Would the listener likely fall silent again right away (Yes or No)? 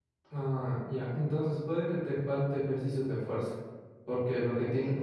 Yes